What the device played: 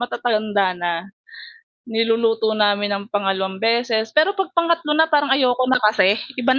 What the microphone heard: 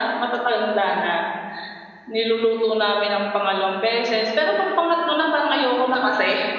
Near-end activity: none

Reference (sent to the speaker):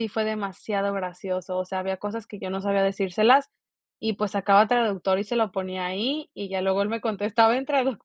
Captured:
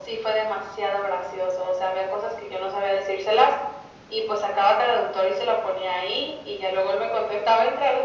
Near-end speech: none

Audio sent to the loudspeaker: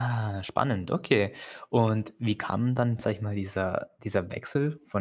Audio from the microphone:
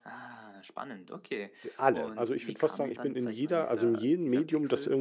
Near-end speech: present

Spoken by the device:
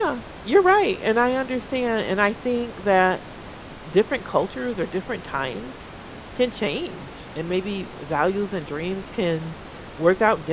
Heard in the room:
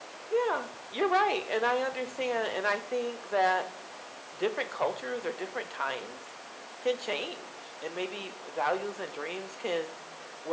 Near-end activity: none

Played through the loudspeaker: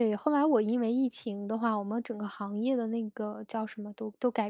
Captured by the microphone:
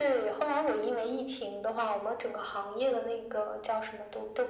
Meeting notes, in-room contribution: none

